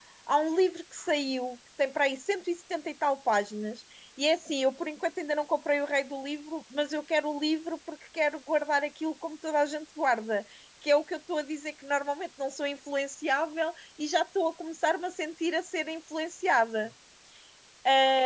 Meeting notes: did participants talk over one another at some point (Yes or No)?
No